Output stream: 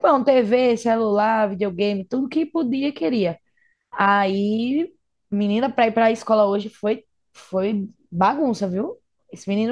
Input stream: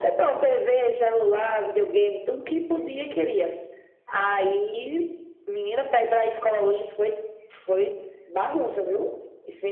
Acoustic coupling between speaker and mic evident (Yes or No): Yes